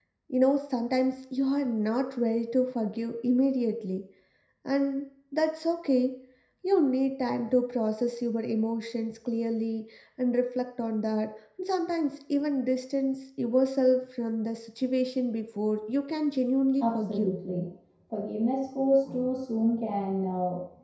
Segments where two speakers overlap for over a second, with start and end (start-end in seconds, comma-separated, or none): none